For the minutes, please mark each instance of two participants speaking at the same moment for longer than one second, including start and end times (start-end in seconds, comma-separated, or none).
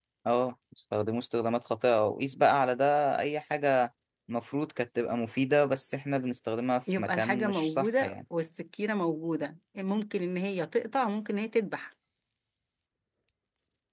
6.9-8.1